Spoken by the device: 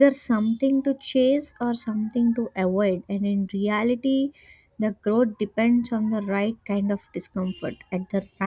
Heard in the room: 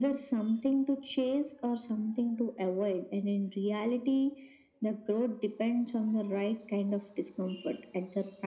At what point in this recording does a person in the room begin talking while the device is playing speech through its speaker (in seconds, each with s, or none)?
none